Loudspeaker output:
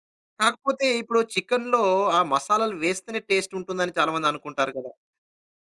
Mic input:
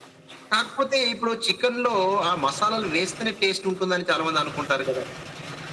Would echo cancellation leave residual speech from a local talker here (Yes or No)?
No